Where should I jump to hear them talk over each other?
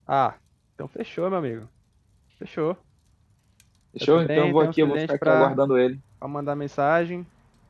4.0 s

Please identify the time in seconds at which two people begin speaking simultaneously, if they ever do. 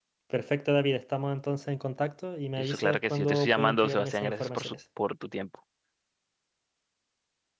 2.6 s

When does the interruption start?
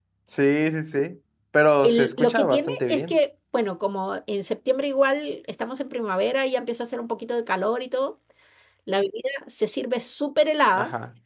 1.8 s

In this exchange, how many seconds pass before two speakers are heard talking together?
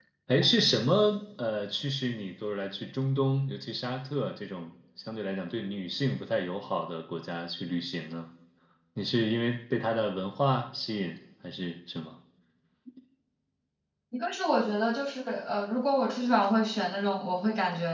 none

